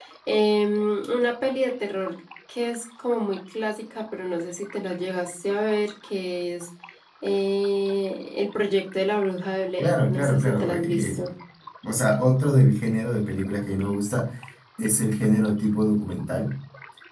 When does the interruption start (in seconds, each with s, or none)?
9.8 s